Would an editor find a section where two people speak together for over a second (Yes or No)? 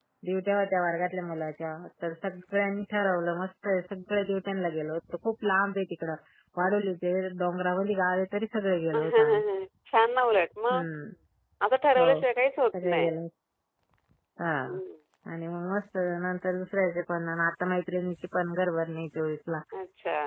No